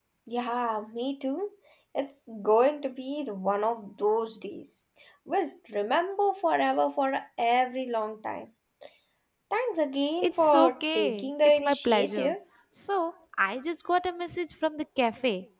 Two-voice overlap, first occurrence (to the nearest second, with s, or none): 10 s